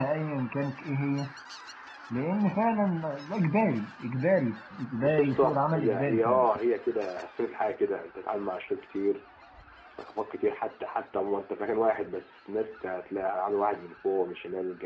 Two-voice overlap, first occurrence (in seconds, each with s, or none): 5.0 s